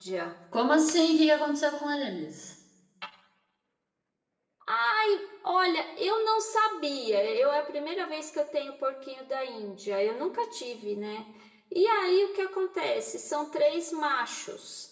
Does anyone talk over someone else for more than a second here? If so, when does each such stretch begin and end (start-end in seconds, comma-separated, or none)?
none